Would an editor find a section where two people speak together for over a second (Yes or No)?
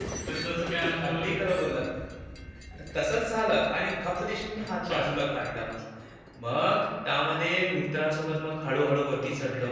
No